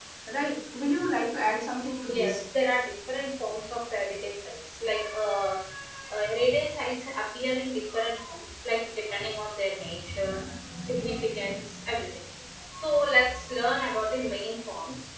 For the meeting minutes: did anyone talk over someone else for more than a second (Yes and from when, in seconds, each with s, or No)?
No